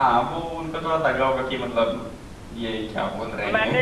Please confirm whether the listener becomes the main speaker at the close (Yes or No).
Yes